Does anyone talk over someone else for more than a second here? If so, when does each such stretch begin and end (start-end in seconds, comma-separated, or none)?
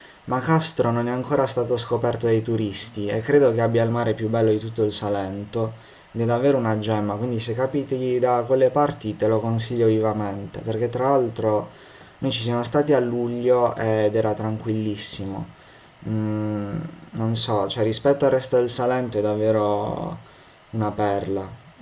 none